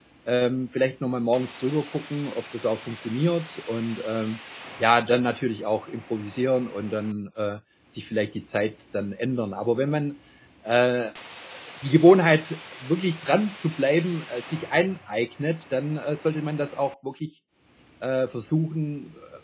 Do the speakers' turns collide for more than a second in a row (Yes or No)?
No